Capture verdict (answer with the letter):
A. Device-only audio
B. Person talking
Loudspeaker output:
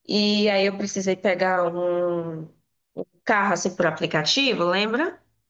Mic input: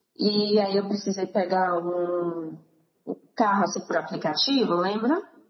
A